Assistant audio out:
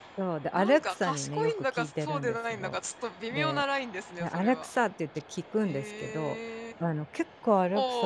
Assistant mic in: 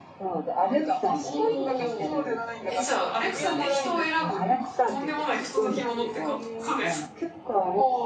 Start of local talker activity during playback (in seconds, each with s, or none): 1.2 s